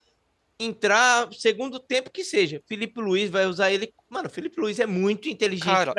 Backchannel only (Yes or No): No